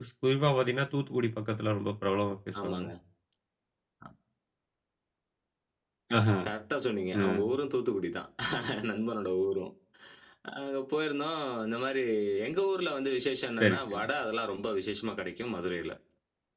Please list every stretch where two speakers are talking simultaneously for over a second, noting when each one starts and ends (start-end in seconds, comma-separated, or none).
none